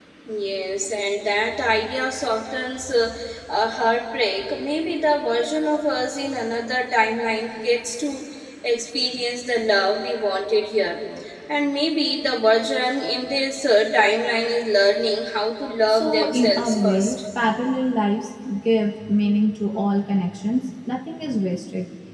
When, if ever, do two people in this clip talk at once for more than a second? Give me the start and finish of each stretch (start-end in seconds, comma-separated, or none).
15.9-17.2